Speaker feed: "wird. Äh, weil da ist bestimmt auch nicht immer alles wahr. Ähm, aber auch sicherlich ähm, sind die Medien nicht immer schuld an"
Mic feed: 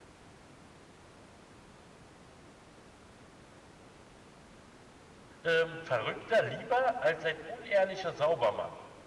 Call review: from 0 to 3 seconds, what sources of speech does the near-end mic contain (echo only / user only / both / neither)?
neither